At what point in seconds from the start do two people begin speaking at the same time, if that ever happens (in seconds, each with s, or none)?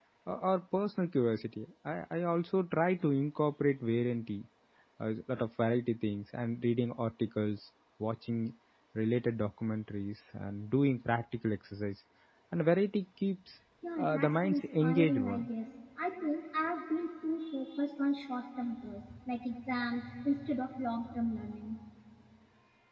14.0 s